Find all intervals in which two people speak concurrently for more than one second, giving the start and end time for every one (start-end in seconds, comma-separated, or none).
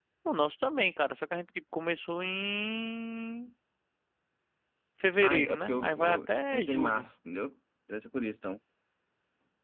5.2-7.0